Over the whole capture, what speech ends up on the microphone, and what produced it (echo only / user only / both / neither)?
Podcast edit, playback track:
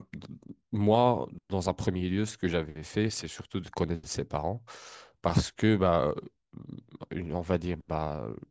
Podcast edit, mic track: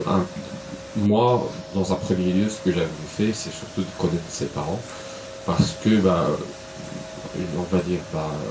echo only